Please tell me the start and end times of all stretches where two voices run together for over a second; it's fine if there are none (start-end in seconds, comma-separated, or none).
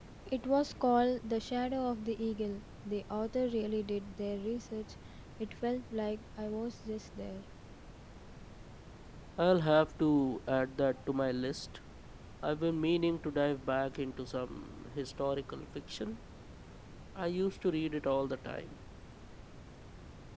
none